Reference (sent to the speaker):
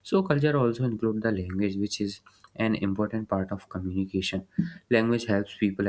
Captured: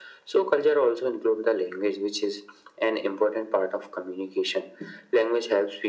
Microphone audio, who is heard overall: echo only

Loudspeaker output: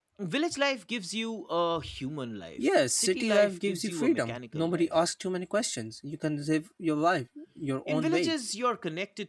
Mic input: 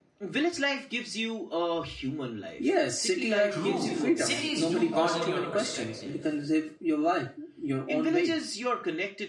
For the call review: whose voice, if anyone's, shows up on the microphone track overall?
both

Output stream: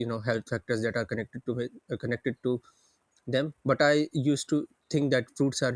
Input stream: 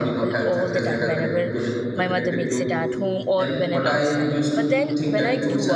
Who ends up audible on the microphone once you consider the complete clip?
both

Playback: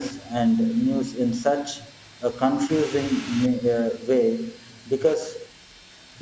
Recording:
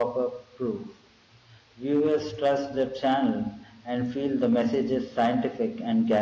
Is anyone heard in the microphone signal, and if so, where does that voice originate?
user only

